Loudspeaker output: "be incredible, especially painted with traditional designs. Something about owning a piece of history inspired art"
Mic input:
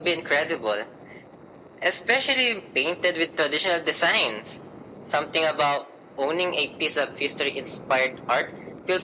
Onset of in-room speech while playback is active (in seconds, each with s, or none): none